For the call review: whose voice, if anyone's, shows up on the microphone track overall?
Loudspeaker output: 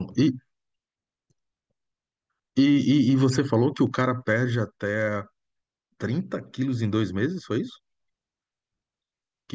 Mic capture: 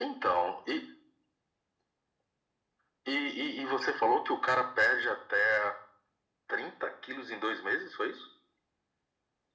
echo only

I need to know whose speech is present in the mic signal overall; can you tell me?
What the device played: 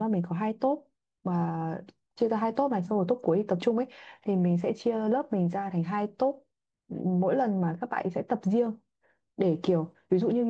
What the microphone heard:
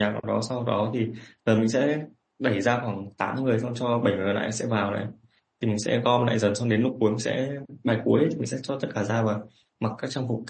user only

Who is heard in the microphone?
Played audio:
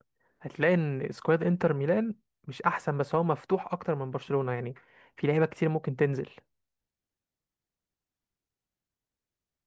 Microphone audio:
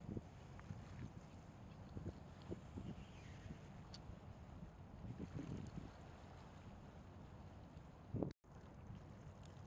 neither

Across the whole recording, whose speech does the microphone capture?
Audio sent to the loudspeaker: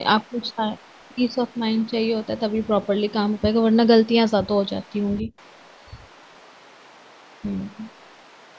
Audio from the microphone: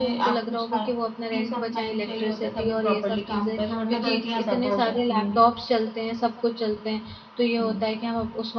both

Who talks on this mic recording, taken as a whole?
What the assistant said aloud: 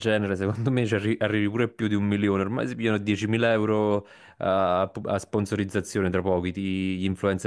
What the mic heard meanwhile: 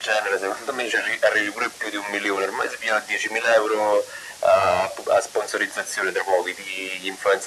echo only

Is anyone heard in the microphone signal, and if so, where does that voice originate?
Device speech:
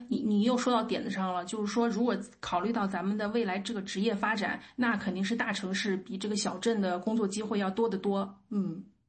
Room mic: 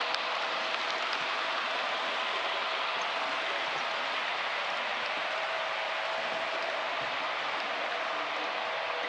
neither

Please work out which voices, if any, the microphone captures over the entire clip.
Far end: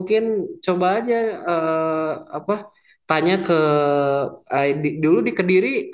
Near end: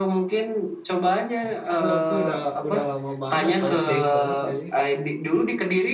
both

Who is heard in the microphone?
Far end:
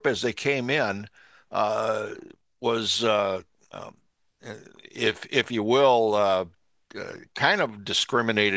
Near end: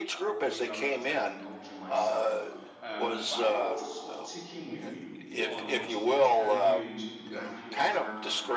both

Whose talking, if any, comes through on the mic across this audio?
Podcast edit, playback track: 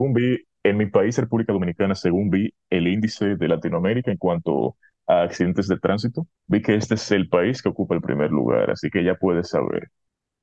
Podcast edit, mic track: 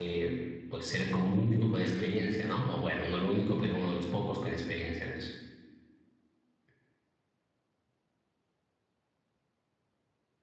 user only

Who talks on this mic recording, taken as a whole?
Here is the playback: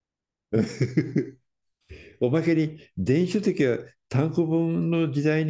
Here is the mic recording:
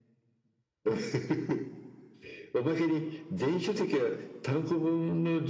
echo only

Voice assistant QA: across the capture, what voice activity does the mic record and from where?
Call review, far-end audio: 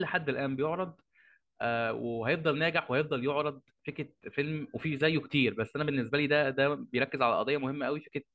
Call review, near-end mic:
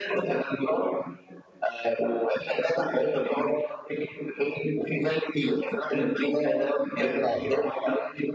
echo only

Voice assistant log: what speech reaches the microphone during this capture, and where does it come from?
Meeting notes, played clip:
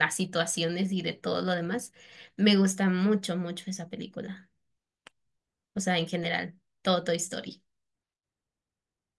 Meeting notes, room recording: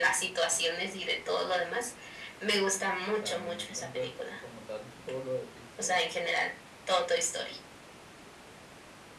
both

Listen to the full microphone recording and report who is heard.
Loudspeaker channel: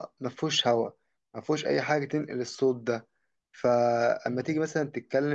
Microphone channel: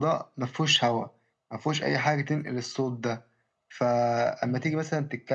echo only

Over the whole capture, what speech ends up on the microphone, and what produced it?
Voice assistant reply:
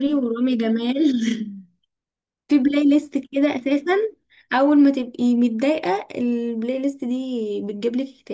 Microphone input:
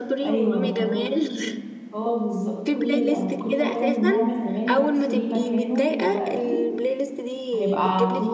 both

